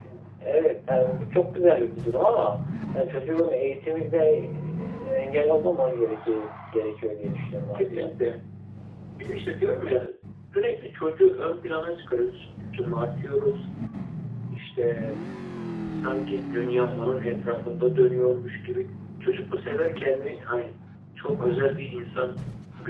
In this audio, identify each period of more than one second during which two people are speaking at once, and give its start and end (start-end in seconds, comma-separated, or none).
none